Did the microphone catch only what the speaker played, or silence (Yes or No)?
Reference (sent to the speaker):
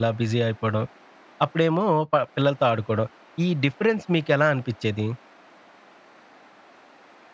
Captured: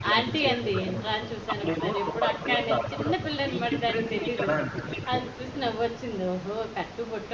No